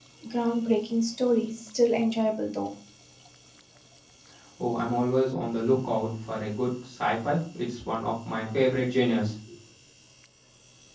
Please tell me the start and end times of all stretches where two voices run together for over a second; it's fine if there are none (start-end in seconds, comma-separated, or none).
none